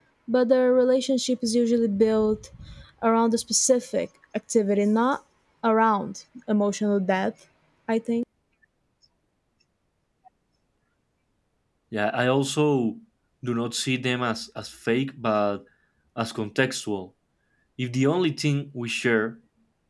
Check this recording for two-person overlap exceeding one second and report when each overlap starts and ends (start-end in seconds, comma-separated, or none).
none